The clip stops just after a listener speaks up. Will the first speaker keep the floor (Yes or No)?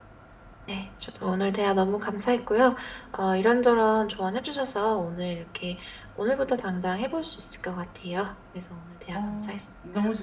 No